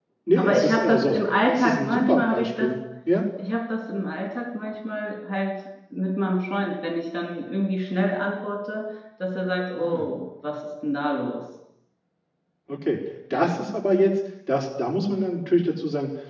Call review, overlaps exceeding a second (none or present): present